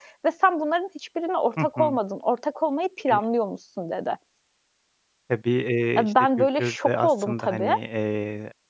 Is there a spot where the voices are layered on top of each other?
Yes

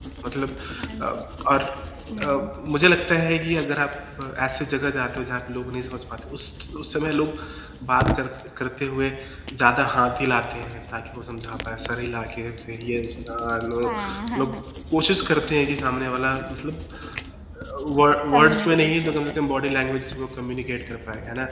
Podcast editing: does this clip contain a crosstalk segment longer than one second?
Yes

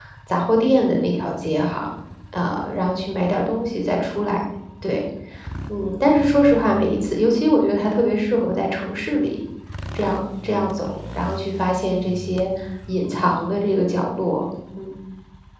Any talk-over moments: No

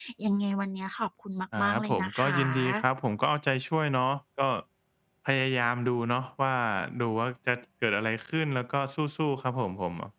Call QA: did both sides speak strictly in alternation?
No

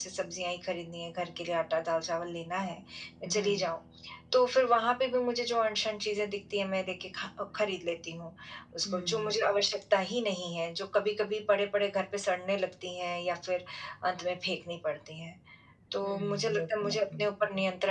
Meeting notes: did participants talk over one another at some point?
Yes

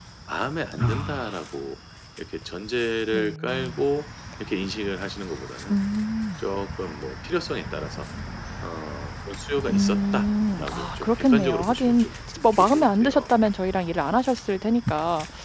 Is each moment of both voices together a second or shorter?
No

